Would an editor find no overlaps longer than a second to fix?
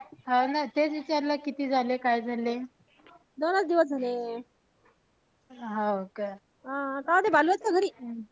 Yes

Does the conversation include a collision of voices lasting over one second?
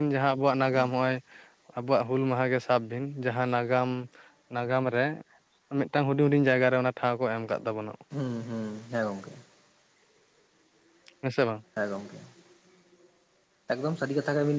No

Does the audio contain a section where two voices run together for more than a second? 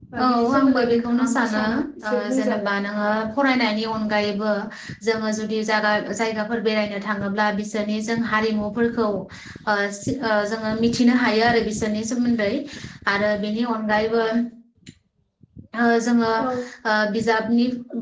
Yes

